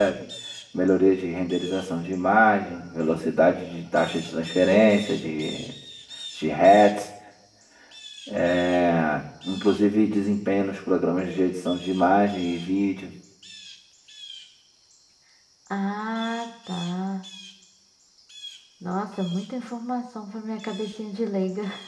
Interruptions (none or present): none